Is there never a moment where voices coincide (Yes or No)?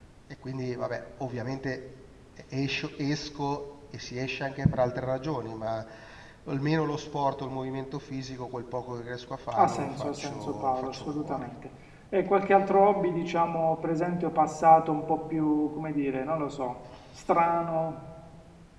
No